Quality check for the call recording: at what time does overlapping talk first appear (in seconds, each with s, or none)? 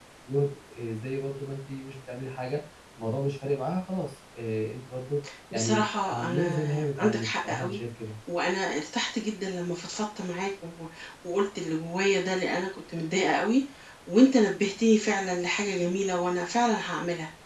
5.5 s